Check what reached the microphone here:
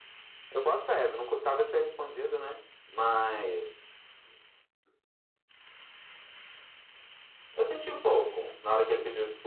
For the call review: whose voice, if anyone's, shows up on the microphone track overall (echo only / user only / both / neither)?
echo only